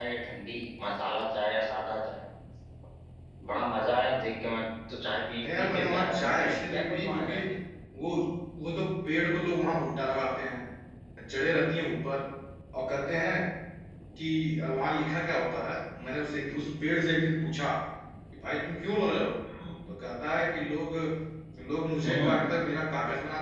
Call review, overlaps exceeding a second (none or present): present